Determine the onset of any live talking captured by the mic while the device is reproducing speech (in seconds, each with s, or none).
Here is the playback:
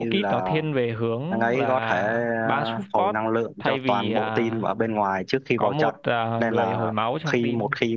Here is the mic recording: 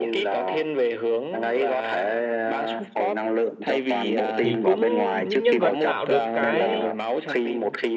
4.3 s